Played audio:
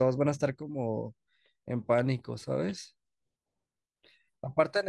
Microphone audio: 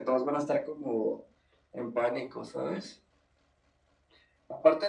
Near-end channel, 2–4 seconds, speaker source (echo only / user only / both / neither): echo only